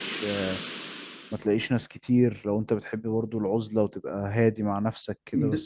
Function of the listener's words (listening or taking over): taking over